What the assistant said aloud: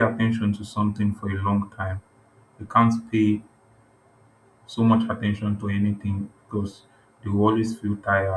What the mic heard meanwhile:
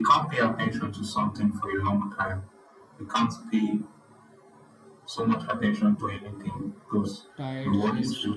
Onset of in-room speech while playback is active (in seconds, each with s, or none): 7.4 s